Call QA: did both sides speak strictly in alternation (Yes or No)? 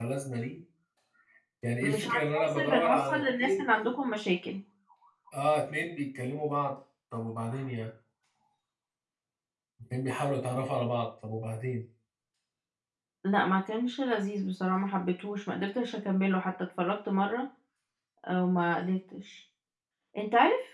No